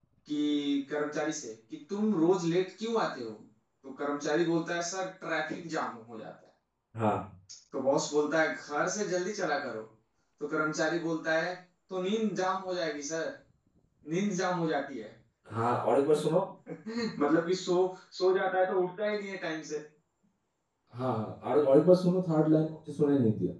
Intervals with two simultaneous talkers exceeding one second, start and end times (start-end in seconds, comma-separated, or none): none